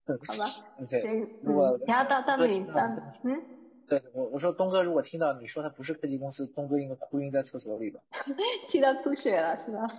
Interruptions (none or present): present